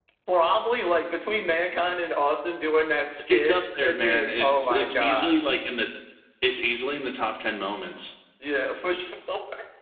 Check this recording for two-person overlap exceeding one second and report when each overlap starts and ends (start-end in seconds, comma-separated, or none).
3.3-5.4